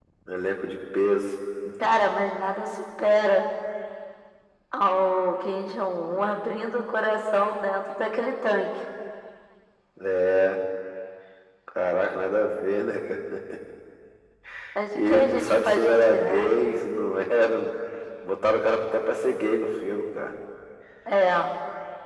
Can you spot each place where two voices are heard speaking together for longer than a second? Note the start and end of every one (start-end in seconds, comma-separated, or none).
14.9-16.5